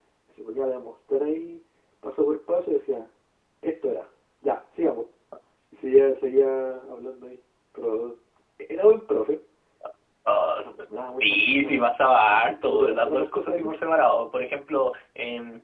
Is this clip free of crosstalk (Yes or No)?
No